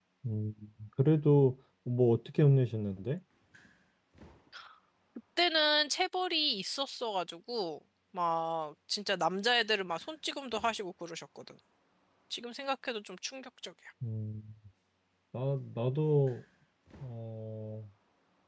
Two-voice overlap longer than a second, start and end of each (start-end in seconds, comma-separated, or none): none